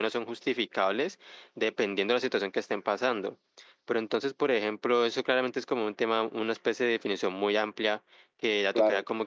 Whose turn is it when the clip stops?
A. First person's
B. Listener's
A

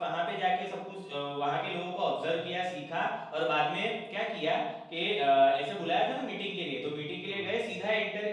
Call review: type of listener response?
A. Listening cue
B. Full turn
A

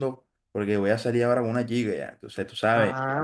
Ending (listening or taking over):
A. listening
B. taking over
B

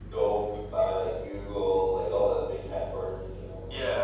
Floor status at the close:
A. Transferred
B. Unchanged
A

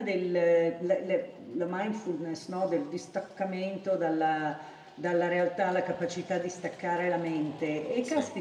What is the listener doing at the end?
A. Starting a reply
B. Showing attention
B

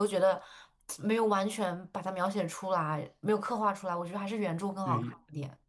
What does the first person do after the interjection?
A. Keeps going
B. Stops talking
B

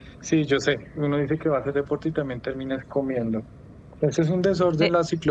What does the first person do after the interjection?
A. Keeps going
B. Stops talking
A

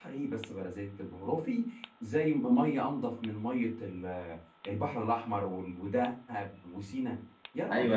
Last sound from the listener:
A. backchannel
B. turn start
B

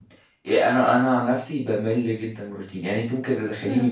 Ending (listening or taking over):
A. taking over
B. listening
B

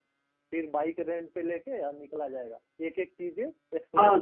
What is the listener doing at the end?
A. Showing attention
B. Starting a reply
B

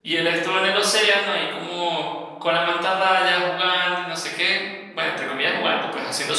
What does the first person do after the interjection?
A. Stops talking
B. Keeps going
B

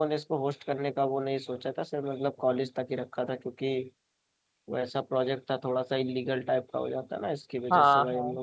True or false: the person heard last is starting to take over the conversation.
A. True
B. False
A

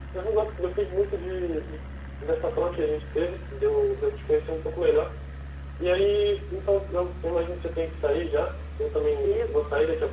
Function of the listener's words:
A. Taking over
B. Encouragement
B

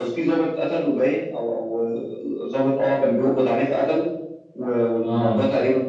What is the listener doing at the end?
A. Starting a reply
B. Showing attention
B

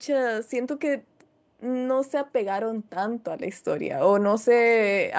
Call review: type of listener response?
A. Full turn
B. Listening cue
B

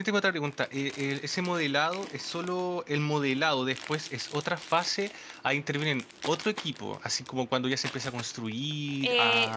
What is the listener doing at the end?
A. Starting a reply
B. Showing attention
A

